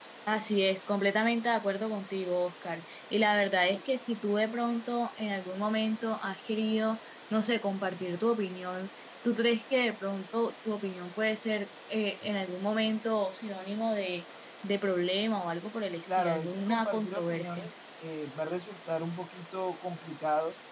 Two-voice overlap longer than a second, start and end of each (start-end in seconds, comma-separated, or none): 16.1-17.7